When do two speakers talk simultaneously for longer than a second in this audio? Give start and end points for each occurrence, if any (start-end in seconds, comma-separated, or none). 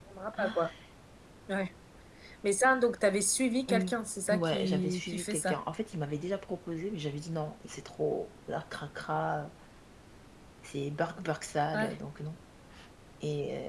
4.3-5.6